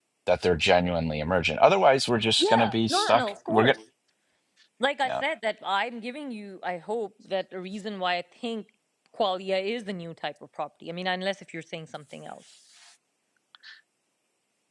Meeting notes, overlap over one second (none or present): present